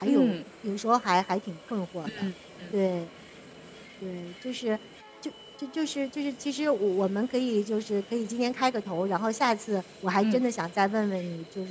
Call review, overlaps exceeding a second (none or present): none